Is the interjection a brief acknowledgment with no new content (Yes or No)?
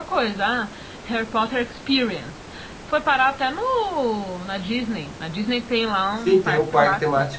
No